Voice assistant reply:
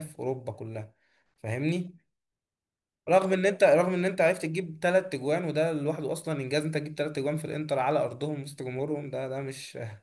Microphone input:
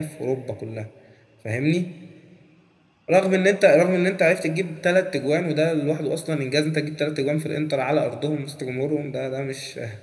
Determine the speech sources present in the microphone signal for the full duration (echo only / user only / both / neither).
echo only